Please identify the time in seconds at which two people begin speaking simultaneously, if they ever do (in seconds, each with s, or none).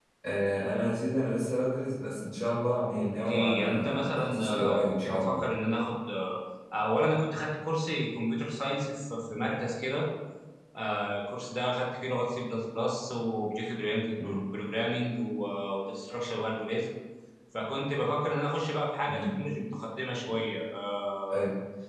3.1 s